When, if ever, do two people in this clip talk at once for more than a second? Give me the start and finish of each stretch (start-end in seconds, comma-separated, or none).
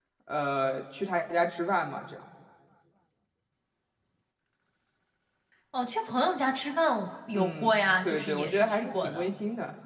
7.3-9.2